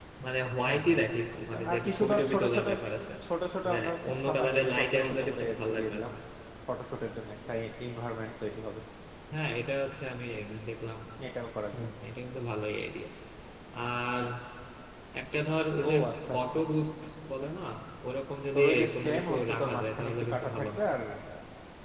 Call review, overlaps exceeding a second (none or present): present